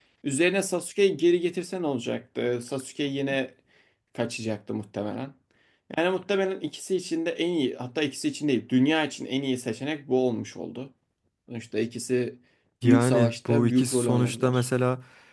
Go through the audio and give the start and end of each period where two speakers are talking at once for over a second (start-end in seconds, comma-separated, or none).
12.8-14.6